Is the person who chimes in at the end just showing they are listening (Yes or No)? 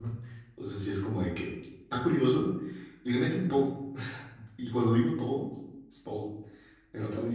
Yes